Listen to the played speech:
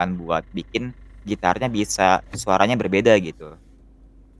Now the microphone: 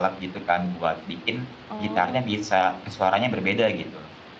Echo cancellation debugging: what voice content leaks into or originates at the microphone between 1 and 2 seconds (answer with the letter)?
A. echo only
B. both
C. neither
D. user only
B